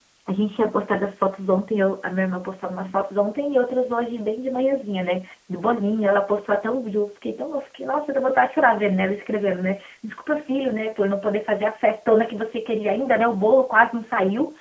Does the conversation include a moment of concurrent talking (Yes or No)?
No